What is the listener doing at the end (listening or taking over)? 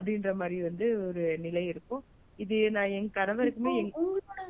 taking over